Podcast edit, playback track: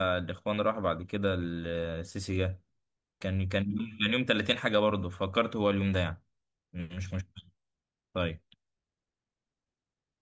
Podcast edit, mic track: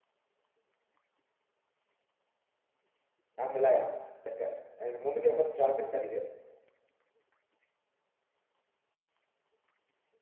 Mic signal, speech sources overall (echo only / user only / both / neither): user only